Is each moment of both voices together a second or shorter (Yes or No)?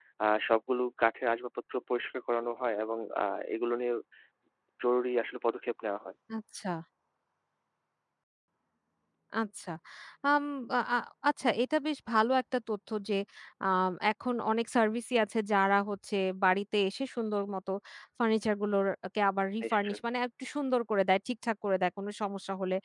Yes